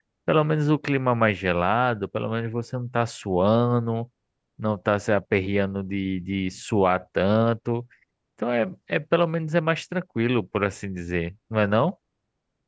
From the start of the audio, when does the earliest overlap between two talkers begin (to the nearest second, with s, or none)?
none